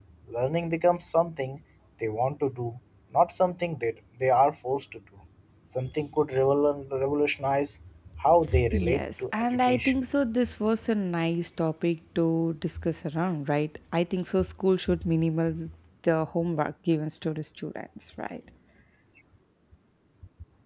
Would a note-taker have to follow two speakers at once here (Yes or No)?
Yes